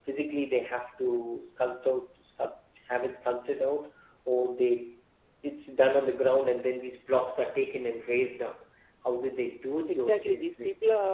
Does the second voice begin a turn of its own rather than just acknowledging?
Yes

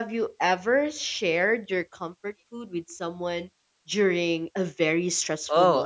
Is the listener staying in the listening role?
No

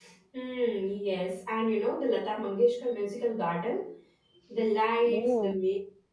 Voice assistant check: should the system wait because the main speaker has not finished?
Yes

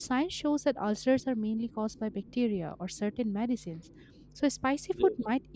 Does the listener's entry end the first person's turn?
No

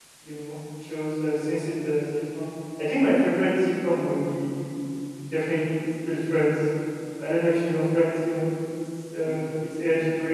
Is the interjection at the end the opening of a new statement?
No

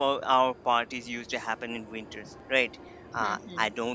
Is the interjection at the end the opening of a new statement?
No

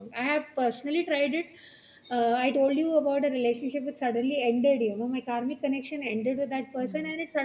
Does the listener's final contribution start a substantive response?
No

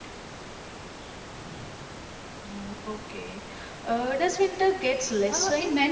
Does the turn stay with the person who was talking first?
No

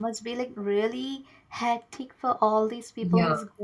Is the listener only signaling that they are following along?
Yes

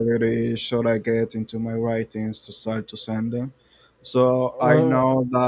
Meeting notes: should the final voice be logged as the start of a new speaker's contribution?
No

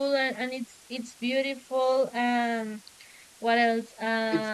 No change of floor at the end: No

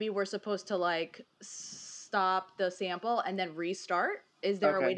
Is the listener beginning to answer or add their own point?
No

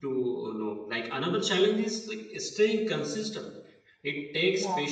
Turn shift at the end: No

